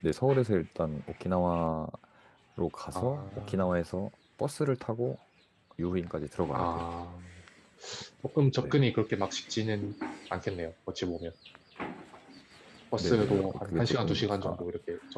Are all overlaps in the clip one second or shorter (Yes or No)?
No